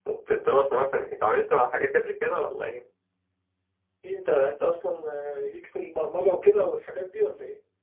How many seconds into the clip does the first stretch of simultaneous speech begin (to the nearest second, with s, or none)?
none